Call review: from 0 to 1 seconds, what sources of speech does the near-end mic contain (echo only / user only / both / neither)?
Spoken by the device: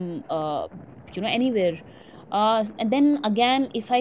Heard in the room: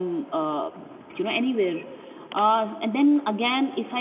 echo only